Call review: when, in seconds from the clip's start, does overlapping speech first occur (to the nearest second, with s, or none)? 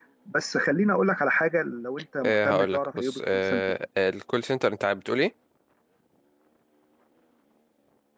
2 s